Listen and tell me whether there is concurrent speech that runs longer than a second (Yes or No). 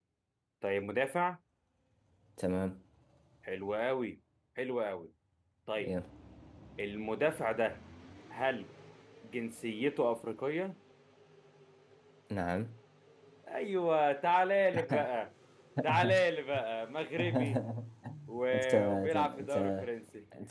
Yes